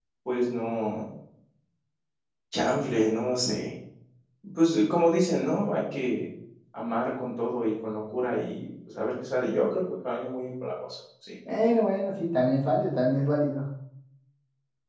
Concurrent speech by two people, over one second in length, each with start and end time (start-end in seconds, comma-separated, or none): none